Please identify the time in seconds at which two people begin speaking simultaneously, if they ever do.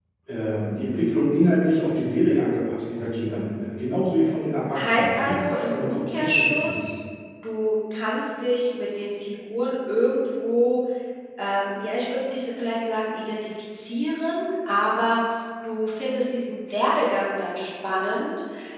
4.8 s

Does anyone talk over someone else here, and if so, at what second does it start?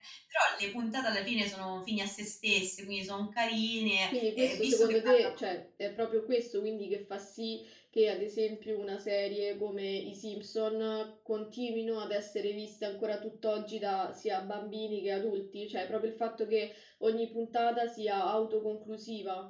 4.1 s

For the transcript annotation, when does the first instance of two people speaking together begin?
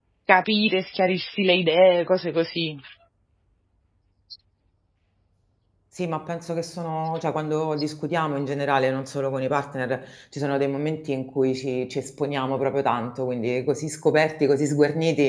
none

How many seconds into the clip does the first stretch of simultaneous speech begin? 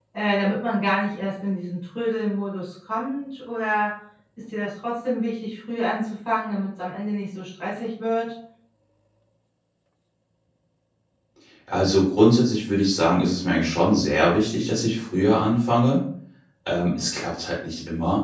none

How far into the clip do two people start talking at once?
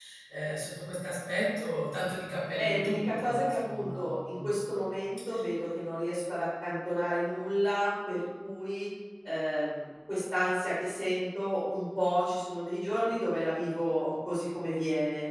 2.6 s

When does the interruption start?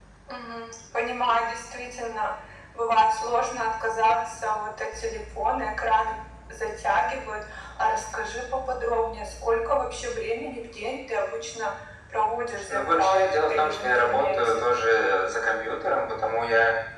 12.7 s

